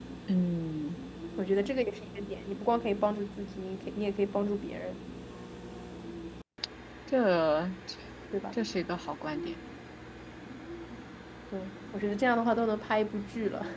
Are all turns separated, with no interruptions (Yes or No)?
Yes